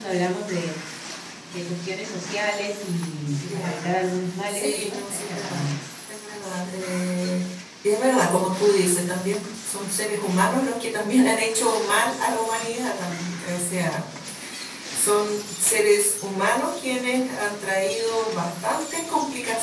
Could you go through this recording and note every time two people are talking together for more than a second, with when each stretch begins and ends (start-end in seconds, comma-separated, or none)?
4.5-5.7